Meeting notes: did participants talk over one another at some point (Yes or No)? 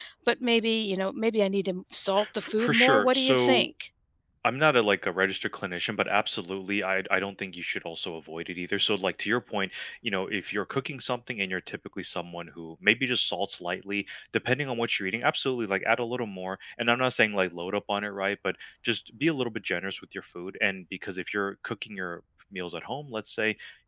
Yes